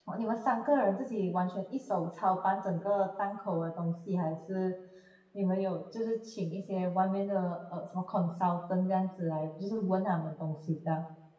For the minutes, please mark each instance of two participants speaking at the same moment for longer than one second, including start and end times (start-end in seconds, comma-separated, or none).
none